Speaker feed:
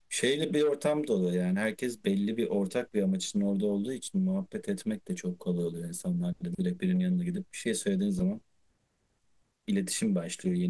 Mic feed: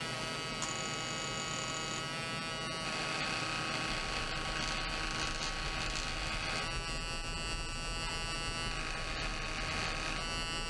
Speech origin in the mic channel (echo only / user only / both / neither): neither